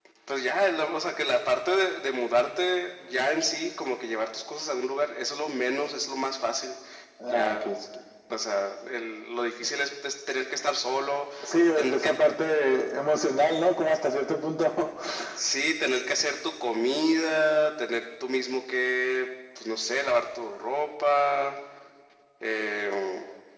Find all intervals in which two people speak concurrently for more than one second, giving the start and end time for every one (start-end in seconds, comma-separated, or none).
none